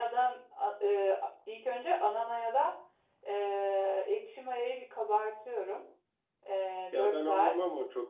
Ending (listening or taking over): taking over